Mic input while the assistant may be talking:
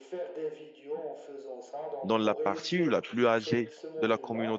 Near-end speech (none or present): present